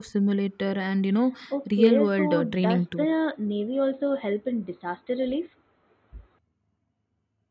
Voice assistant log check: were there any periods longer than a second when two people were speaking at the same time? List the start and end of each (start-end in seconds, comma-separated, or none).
1.8-3.1